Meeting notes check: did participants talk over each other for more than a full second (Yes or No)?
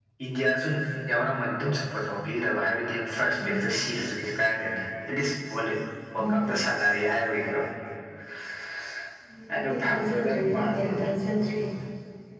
Yes